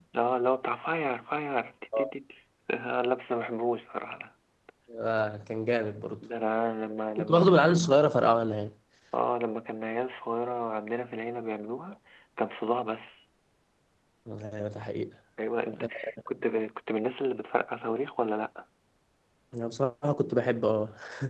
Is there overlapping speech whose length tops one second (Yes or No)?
No